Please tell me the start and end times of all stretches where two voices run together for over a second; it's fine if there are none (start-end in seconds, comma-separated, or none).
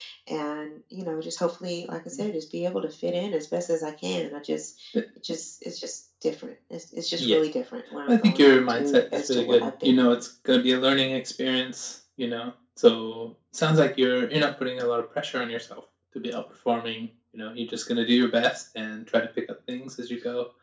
8.1-10.2